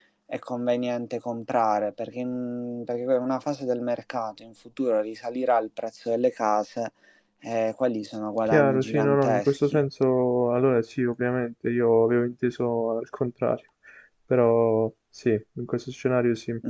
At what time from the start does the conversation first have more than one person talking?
8.5 s

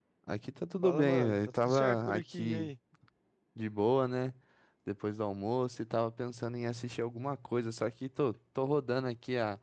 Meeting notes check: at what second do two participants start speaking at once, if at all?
0.8 s

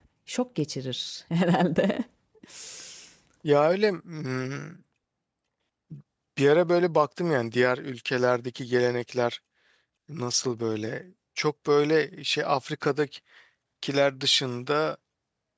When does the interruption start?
none

